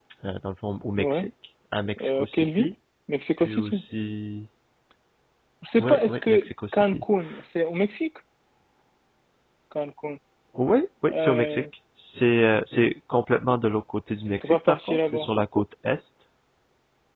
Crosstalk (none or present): present